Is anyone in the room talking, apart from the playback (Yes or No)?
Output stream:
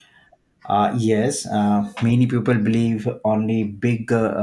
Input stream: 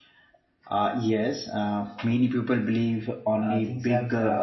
Yes